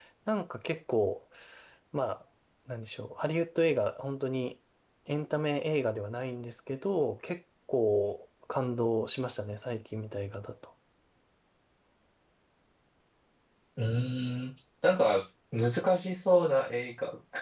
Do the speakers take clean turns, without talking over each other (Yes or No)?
Yes